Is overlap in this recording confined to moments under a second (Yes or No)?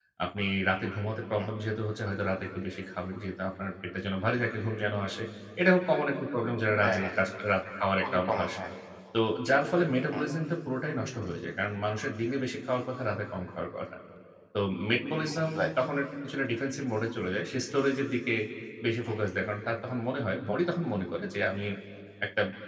Yes